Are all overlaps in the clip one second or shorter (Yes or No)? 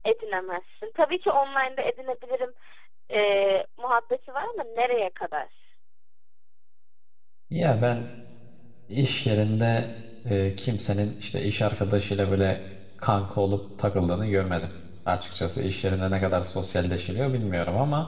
Yes